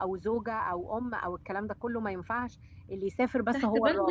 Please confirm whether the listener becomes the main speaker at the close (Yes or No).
Yes